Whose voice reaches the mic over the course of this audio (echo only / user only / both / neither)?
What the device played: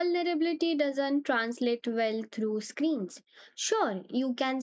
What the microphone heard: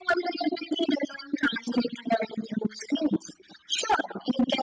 echo only